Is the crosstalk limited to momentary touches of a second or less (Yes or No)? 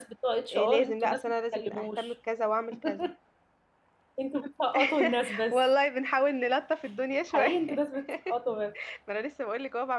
No